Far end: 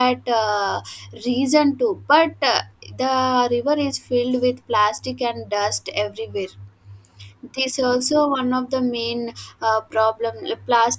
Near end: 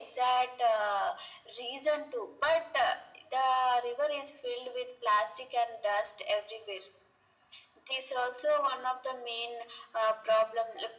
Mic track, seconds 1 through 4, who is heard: echo only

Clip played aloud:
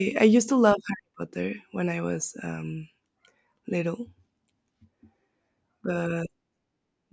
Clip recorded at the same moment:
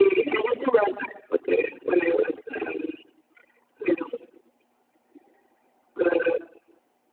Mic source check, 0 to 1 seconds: echo only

